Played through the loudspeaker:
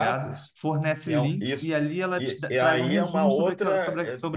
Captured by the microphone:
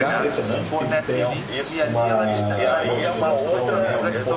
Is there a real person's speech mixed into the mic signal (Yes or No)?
Yes